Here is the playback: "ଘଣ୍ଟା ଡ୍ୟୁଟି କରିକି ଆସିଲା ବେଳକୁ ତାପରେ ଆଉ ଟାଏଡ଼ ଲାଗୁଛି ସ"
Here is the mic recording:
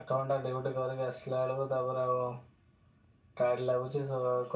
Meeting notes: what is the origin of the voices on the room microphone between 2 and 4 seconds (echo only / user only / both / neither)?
echo only